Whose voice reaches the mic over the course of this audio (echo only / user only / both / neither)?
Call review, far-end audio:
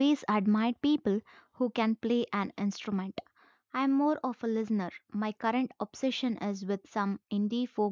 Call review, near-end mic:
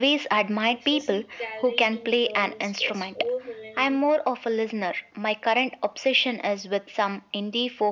both